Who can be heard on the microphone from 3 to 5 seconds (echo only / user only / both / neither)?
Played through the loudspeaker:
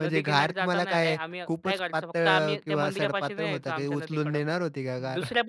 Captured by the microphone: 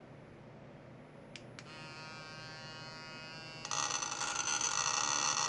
neither